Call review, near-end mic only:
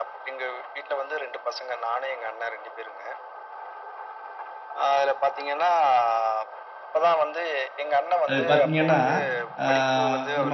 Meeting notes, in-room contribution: present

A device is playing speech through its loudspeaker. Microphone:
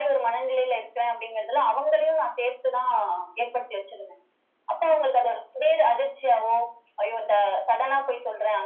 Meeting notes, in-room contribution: none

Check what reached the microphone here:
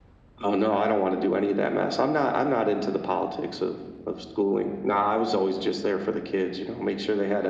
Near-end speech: none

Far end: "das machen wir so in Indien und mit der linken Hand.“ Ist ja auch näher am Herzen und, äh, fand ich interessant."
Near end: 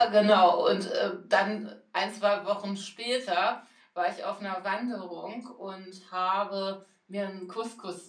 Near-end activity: present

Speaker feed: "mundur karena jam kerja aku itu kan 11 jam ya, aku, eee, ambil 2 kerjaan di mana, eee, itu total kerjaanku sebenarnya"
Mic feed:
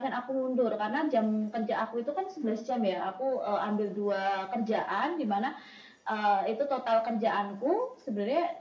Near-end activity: none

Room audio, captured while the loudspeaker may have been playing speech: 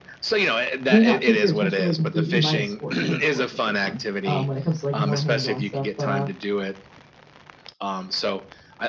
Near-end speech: present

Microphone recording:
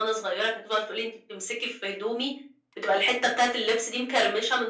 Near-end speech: none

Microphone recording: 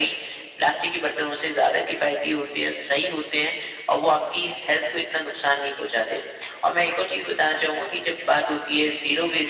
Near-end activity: none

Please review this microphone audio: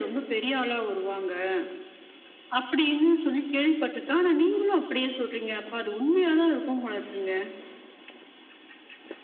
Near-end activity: none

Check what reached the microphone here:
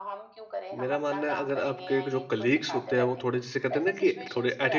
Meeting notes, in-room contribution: present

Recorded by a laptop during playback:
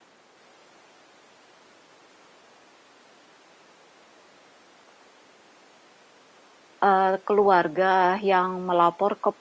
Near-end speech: present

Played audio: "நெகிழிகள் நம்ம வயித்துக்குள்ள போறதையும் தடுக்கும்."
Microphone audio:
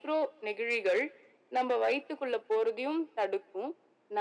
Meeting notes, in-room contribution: none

